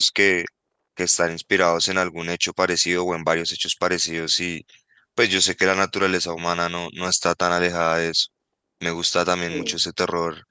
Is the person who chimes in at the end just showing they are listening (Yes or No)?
Yes